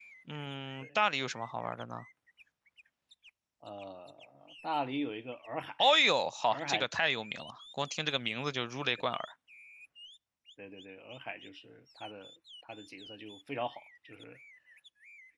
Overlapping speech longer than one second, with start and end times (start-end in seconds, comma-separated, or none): none